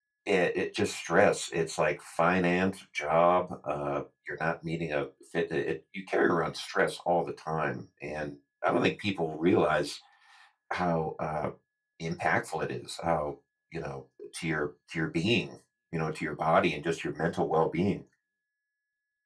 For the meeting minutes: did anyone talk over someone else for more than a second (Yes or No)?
No